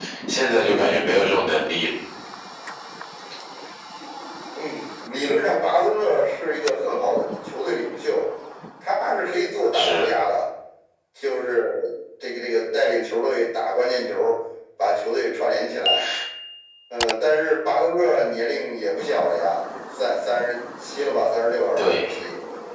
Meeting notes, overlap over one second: none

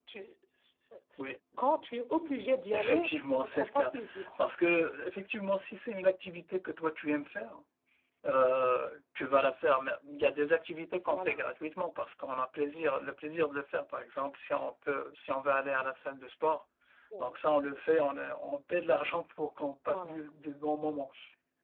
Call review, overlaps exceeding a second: present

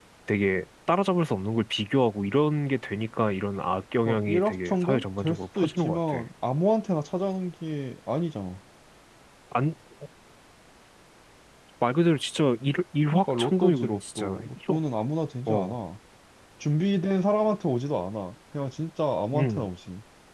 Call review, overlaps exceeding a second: present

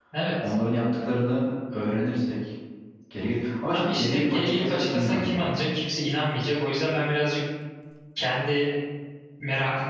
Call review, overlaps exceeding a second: present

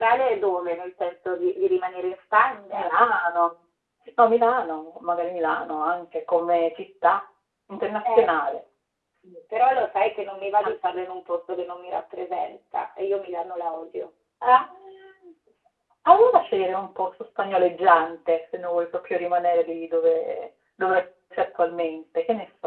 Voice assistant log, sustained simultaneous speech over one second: none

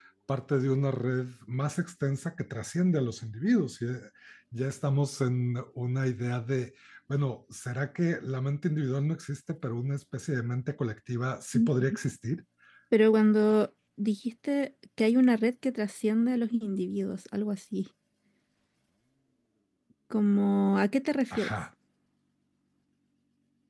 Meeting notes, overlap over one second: none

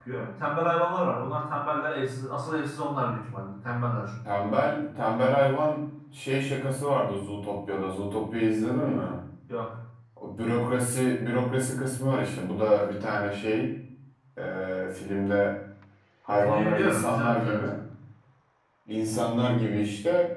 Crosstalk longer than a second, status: present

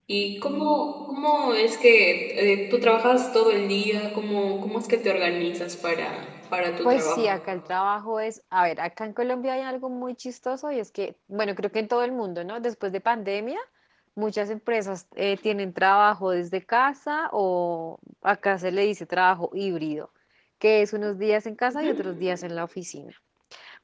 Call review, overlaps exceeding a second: none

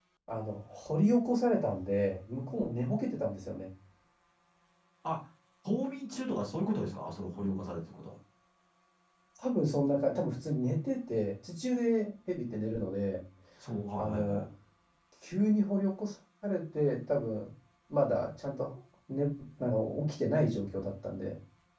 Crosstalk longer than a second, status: none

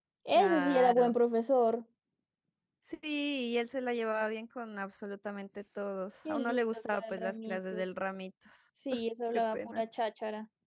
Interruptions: present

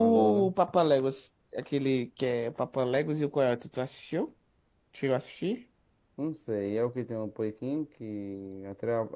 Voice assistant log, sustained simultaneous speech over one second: none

